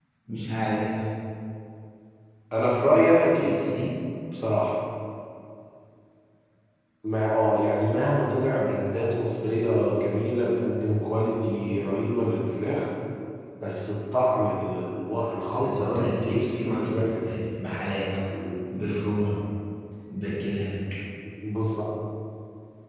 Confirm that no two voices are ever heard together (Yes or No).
No